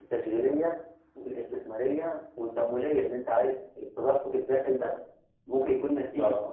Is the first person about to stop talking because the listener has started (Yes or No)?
No